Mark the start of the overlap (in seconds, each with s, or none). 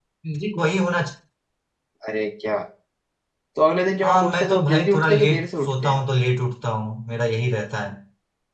4.0 s